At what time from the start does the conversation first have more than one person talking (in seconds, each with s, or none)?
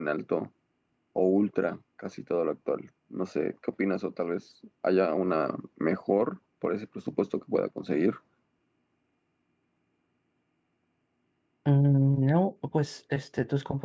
none